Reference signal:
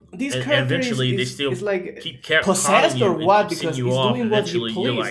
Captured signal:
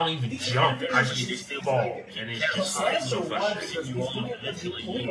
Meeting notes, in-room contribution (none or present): present